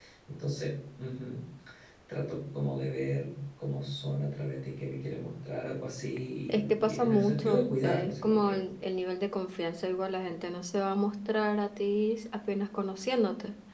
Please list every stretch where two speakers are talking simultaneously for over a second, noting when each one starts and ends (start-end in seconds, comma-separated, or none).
6.7-8.6